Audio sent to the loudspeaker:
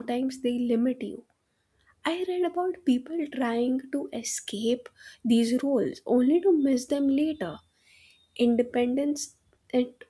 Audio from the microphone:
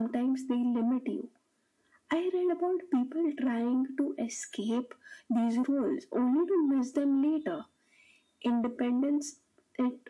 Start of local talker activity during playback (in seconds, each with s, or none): none